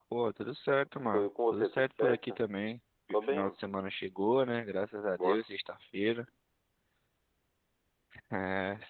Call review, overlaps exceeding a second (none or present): present